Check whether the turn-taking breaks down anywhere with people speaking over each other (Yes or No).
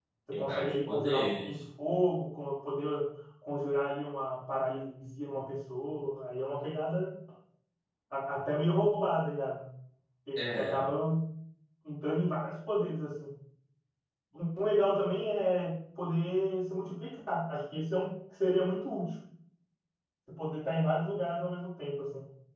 Yes